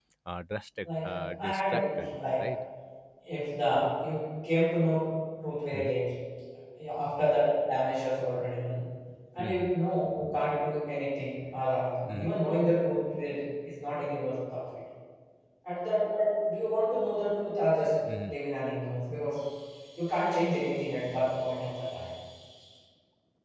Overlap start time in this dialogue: 1.0 s

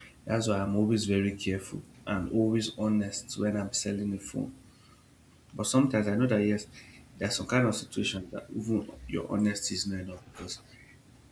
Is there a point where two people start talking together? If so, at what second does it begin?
none

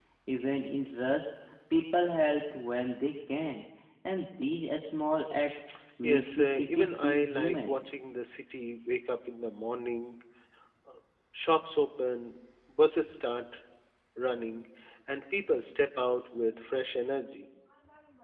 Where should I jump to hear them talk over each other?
6.0 s

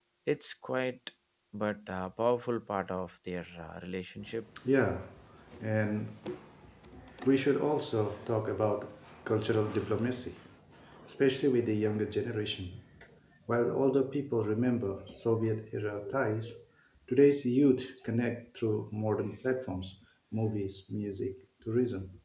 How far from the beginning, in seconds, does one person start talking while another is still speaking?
none

